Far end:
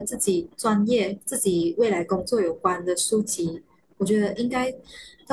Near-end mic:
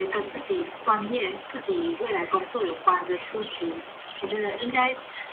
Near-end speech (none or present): none